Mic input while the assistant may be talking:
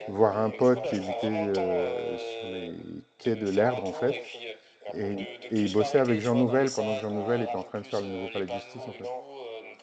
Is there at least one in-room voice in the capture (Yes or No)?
Yes